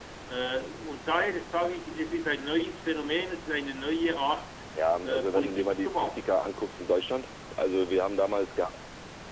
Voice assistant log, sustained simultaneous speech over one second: present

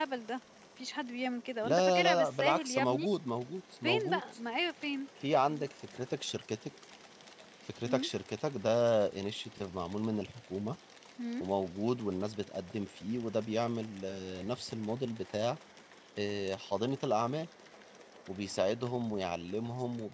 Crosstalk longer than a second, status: present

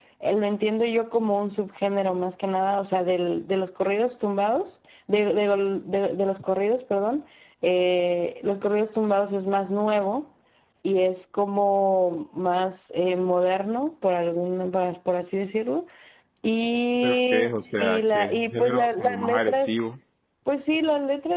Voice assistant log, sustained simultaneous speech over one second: present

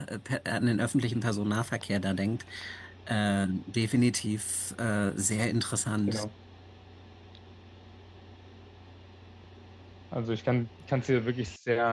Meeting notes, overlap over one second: none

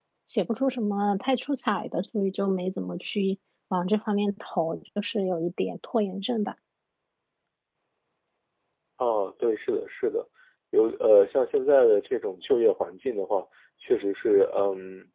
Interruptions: none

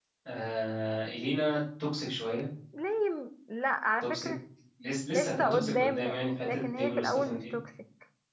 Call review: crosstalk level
present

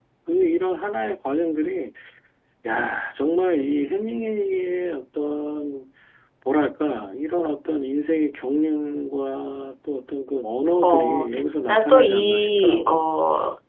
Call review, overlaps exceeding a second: present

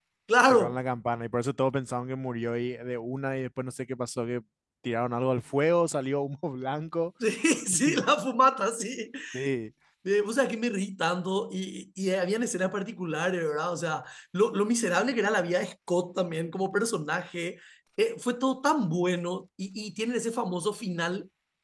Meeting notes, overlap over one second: none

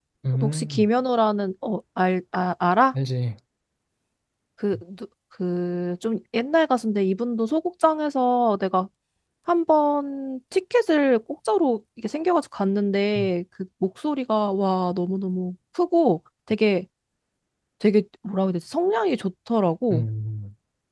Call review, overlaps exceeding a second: none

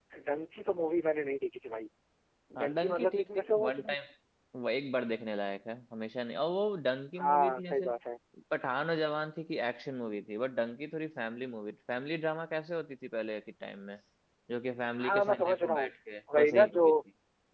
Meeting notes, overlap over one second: present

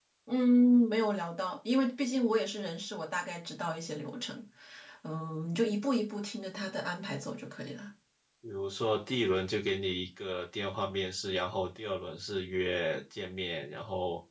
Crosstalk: none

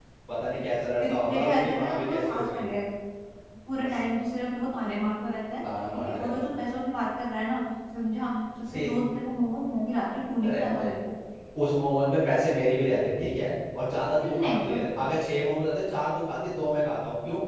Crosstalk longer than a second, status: present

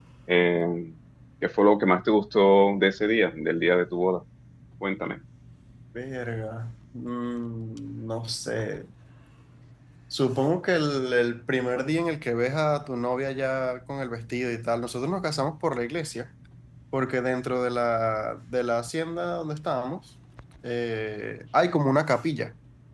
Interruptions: none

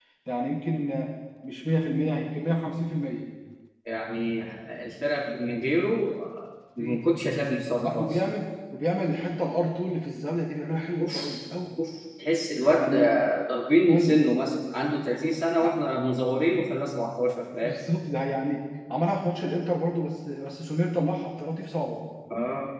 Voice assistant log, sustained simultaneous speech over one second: none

